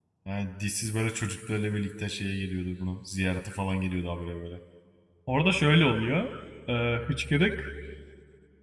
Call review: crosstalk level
none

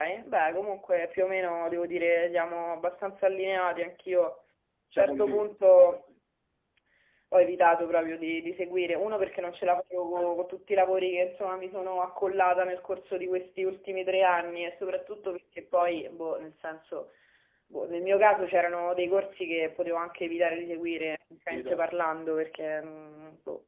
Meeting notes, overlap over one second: none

